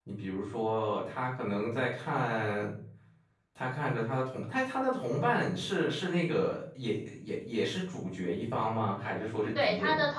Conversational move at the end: taking over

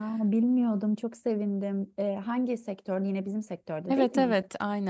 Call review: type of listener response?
taking over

